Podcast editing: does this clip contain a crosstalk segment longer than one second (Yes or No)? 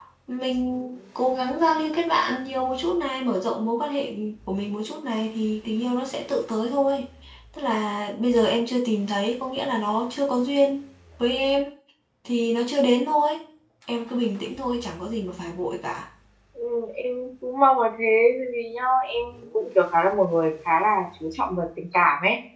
No